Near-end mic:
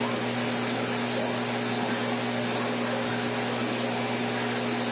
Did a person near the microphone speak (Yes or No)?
No